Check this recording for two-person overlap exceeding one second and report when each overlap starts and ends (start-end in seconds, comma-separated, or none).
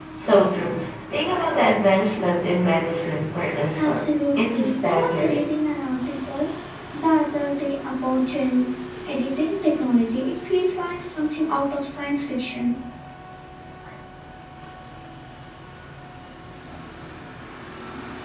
3.7-5.5